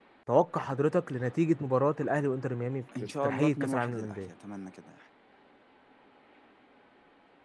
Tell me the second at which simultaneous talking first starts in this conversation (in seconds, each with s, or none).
2.9 s